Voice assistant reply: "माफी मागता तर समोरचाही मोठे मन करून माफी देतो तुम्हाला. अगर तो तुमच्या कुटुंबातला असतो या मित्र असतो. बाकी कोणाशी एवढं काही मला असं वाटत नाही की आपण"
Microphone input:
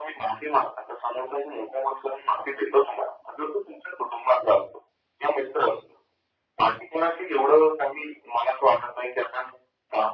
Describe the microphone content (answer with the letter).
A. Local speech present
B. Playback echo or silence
B